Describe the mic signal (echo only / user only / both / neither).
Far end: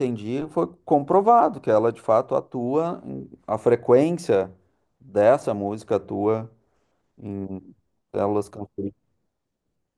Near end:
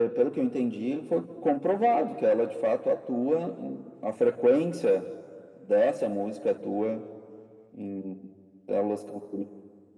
echo only